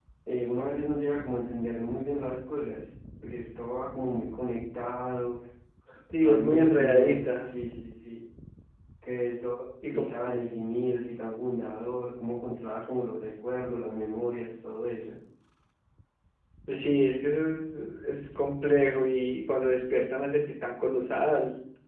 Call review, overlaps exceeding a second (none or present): present